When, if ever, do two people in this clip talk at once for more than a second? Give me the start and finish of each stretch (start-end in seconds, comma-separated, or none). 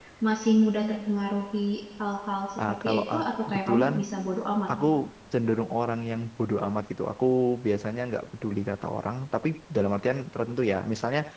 2.6-3.9